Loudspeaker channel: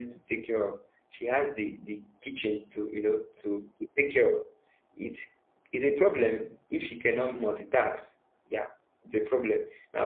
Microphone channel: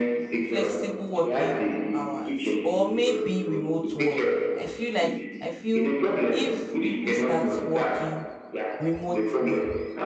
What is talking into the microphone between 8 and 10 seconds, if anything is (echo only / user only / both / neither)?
both